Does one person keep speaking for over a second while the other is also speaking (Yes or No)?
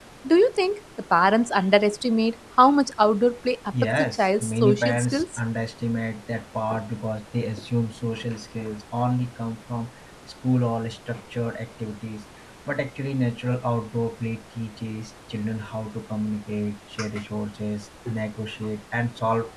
Yes